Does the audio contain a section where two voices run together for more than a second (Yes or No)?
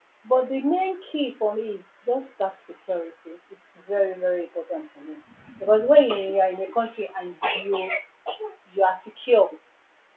No